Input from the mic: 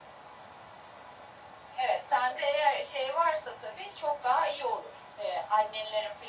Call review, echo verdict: present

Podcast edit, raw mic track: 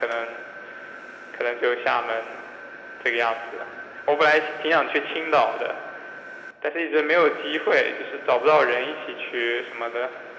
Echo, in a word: present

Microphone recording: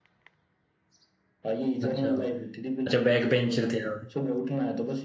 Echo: present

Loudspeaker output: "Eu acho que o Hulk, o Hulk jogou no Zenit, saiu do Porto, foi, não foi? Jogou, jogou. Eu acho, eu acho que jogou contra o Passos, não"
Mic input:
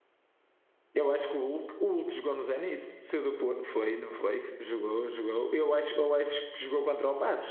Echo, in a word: present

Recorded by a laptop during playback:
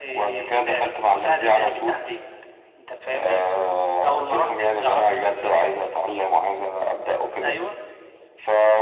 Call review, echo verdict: present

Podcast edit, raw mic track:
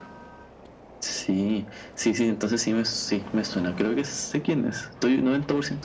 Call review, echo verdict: present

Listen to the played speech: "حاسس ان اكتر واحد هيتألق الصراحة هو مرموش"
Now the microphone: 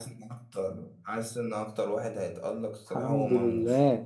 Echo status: present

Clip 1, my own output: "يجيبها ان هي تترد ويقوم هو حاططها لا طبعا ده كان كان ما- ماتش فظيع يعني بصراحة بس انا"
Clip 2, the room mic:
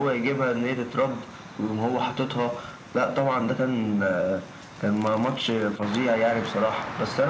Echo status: present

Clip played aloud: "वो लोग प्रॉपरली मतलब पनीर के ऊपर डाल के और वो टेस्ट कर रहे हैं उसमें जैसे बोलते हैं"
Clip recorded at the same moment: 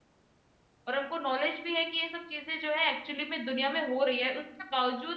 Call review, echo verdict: none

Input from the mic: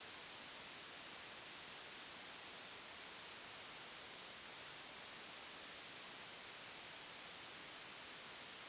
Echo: none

